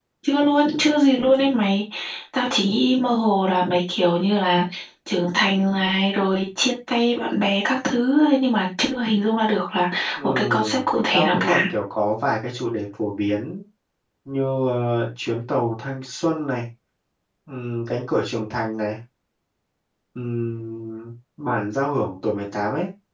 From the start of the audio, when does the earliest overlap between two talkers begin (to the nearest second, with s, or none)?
10 s